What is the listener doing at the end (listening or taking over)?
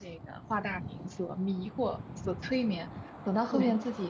listening